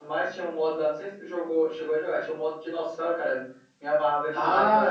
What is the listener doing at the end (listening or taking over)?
taking over